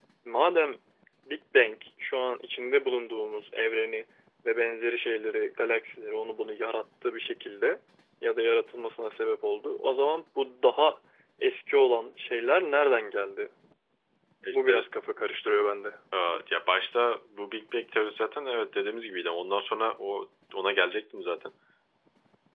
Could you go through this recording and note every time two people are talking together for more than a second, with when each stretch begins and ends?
none

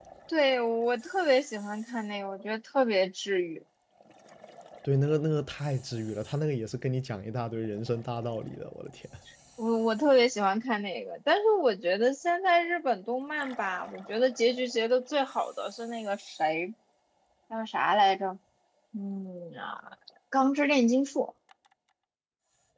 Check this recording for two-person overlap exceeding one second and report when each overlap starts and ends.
none

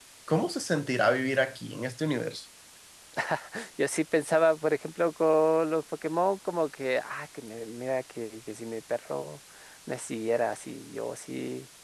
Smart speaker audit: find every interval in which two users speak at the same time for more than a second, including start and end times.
none

